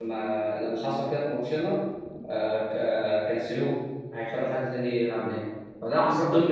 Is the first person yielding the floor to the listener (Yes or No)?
No